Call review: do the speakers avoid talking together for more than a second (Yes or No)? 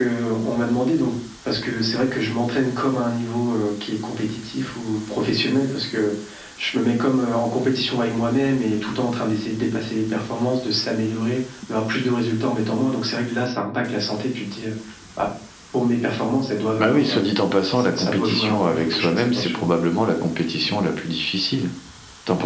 No